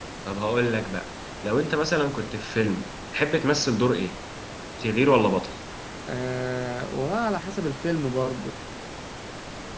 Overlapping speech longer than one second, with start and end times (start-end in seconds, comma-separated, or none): none